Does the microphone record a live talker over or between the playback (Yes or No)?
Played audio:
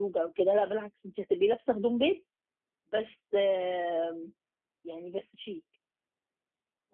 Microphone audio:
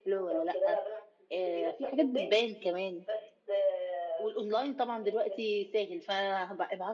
Yes